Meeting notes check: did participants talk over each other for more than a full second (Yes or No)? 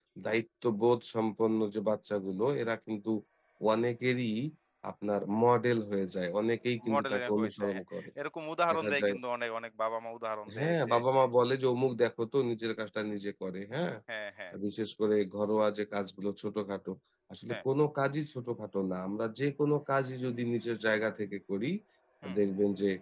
Yes